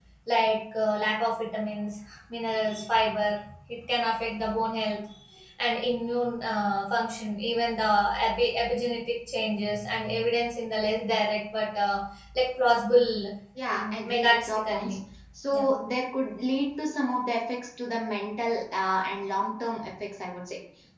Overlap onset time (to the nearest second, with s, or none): 14 s